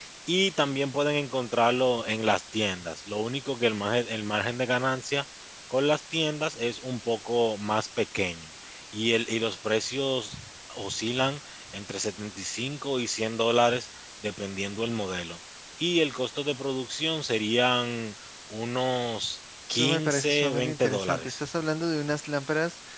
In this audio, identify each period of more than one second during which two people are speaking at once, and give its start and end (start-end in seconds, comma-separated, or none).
19.7-21.5